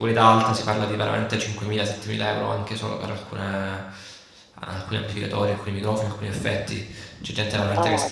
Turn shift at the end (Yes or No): No